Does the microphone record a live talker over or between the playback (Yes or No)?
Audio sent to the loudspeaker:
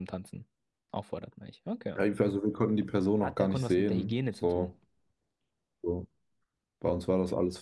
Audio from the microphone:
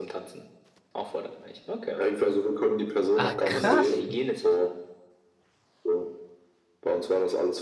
Yes